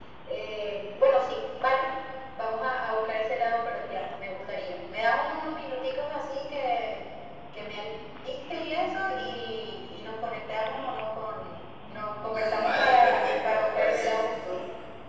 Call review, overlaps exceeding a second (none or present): present